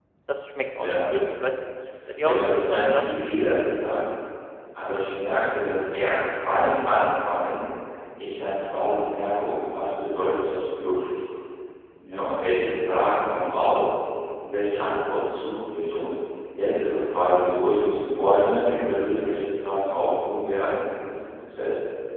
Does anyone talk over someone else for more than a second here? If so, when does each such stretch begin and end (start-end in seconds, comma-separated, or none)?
2.2-3.5